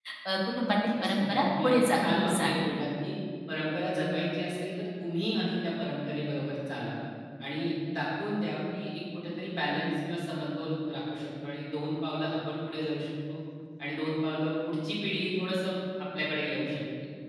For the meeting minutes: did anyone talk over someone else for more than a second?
Yes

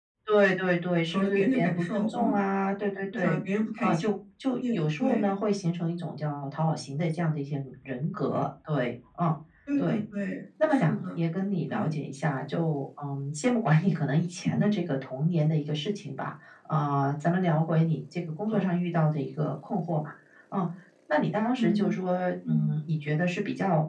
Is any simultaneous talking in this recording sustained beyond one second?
Yes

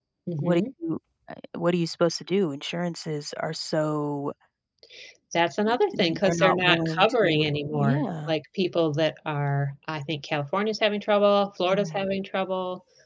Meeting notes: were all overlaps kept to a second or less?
No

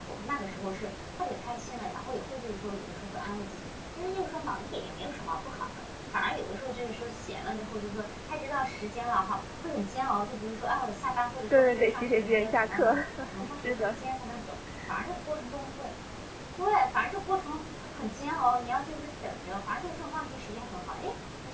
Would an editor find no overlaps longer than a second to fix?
No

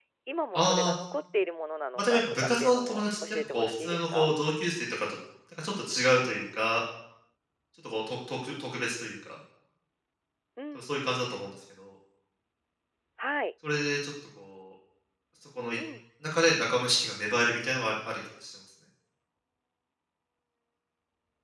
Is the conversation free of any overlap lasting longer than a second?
No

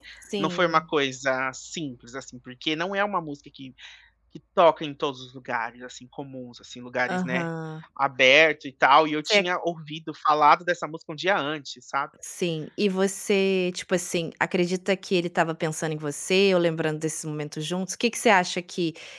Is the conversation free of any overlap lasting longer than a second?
Yes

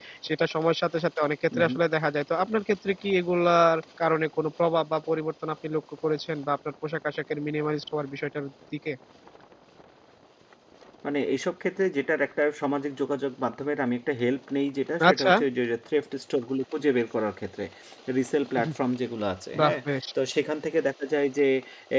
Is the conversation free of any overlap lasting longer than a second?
Yes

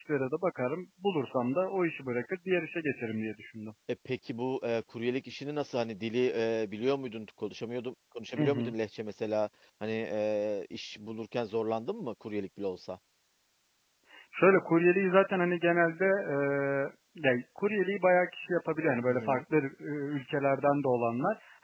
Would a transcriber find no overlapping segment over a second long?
Yes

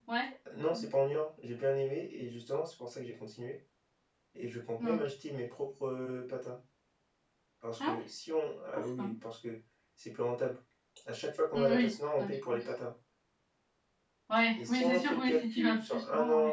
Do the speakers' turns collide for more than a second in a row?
Yes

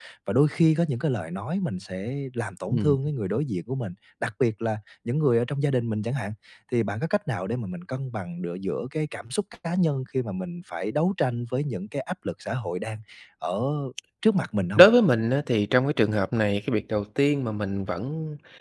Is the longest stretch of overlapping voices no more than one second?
Yes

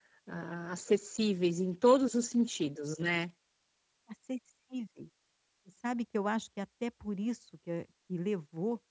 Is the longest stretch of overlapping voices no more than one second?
Yes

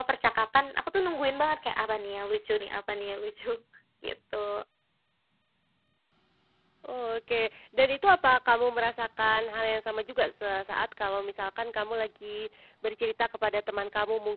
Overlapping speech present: No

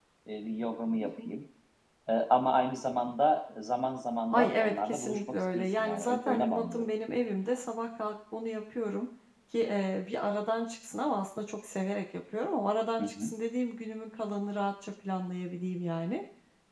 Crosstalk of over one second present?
Yes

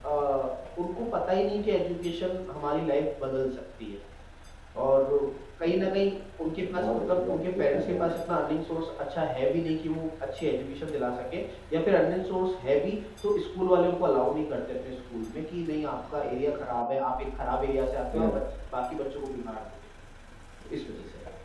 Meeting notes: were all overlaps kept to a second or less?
No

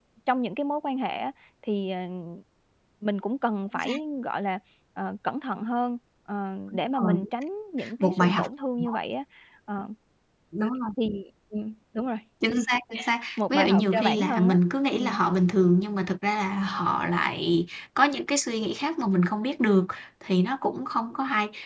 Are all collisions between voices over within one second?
No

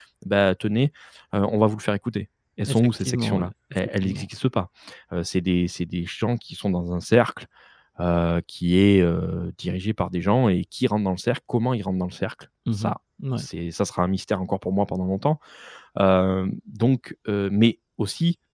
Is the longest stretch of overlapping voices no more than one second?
No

